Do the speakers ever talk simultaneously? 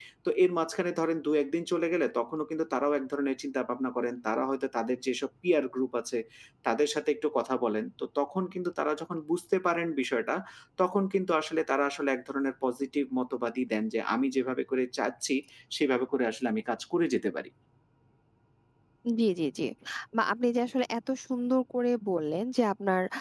No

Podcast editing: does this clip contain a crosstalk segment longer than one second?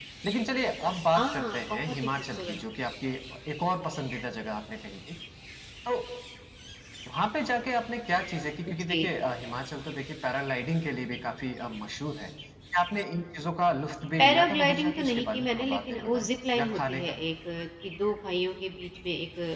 Yes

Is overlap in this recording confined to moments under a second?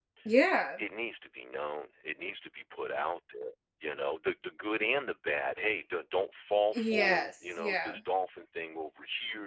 No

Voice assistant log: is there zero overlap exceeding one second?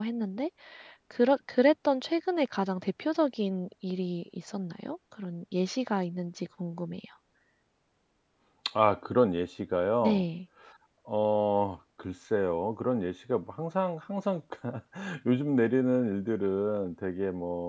Yes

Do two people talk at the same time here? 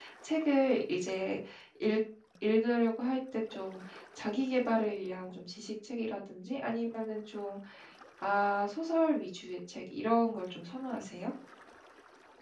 No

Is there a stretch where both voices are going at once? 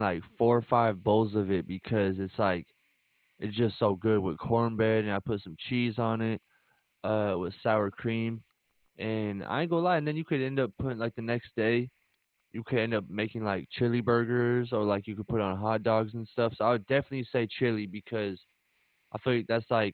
No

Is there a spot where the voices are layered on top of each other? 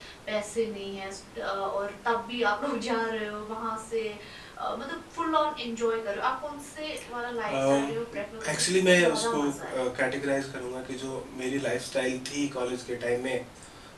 Yes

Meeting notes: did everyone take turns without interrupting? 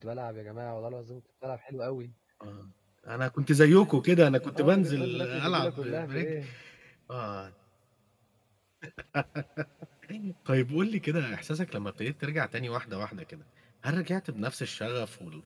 No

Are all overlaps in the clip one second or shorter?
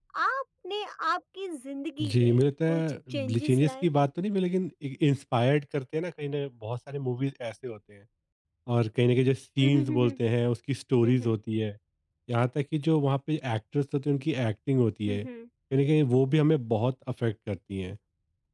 No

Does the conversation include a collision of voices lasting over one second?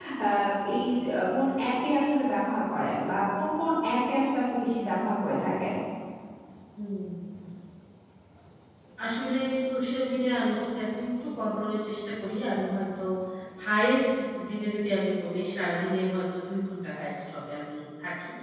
No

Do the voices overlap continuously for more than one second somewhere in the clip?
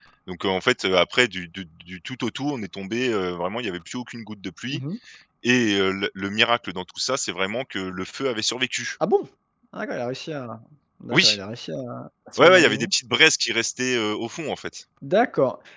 No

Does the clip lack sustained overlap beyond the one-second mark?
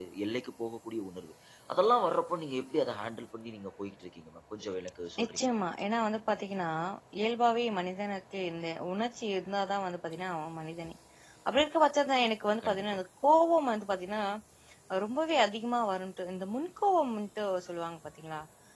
Yes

